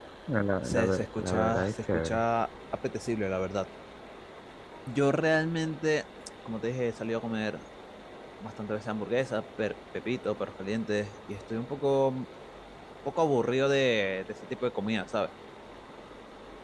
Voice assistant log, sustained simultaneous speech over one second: present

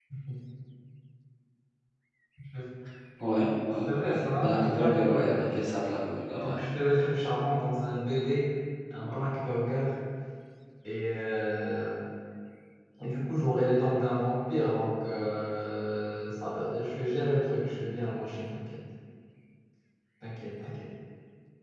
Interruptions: present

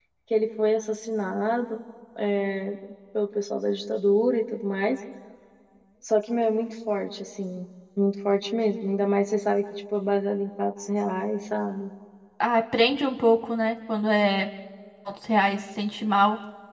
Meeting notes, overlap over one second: none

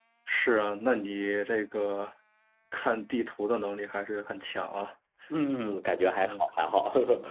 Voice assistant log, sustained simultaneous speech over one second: none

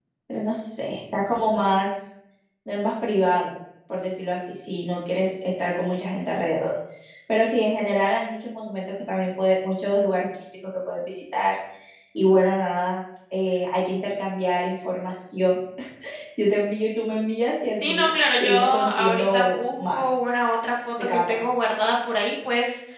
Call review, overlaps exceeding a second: present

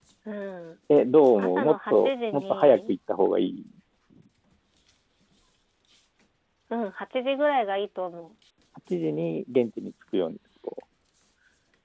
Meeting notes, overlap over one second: present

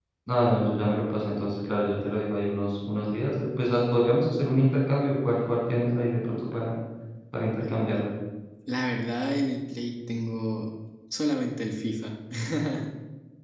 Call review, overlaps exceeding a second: none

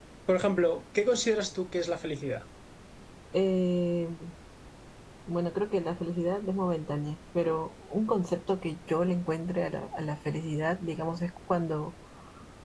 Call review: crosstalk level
none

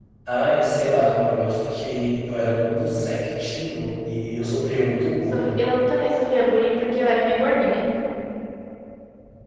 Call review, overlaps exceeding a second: none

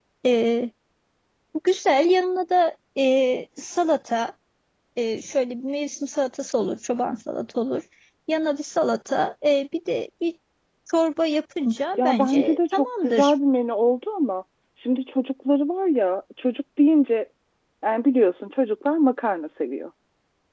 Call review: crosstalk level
present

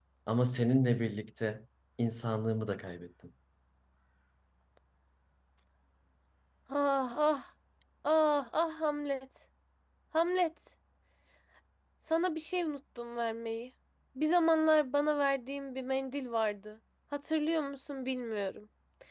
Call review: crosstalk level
none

